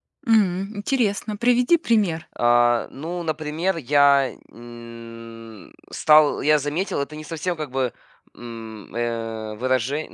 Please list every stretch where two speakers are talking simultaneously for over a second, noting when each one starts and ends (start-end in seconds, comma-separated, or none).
none